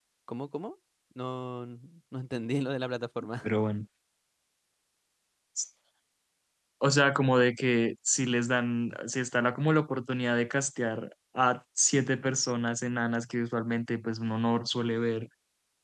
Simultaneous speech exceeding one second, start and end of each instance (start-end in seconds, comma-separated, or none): none